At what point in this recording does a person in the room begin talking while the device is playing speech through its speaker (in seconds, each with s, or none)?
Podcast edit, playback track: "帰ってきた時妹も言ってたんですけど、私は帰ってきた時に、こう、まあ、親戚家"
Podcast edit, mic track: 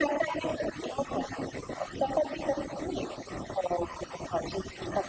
none